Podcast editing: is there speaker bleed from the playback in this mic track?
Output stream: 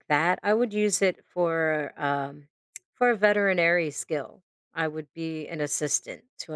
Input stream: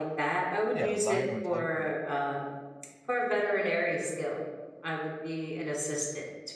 Yes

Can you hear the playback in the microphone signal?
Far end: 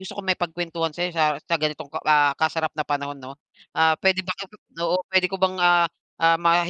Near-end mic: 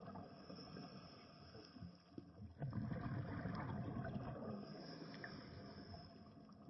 No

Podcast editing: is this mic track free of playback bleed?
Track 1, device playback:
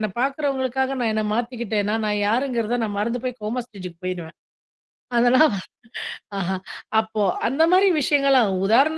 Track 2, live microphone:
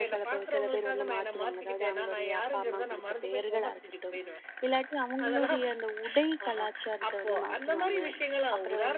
No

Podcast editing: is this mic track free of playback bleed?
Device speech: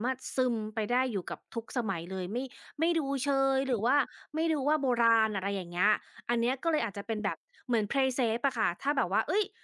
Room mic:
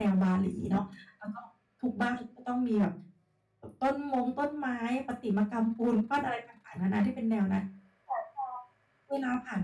Yes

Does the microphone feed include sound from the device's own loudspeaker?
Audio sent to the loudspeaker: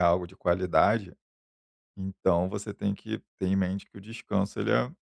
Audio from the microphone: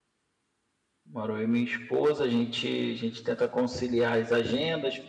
No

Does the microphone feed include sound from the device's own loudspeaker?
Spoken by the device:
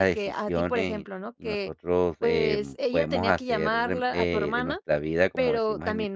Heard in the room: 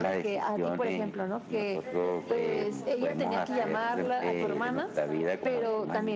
Yes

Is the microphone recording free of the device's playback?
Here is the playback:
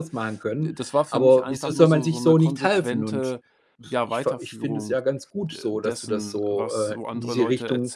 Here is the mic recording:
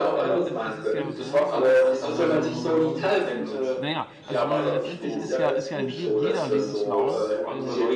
No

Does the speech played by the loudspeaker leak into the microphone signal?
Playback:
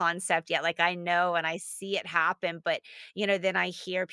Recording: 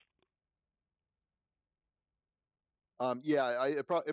No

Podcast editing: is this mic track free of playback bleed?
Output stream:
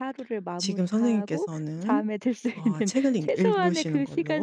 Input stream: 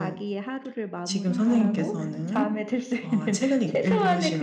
No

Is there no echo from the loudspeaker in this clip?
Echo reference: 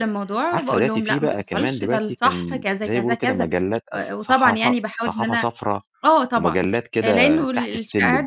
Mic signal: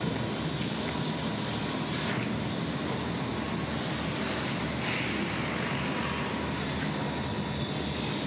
Yes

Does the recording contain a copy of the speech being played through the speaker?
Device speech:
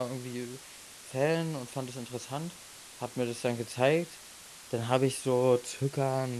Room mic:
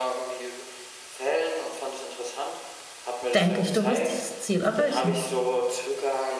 Yes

